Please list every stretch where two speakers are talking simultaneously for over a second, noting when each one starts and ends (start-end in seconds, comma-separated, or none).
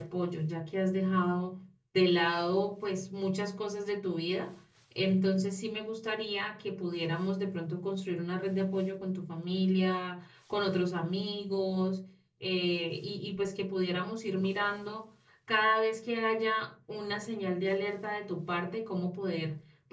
none